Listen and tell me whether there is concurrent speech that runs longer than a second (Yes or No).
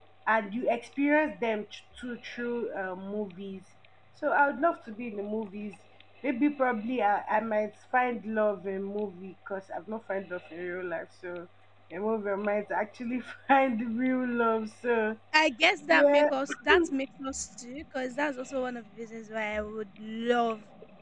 No